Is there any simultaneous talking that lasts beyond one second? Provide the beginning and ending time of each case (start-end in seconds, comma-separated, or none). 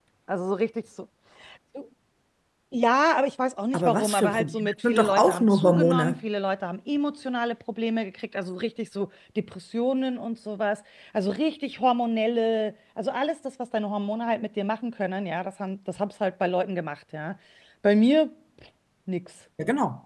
3.7-6.2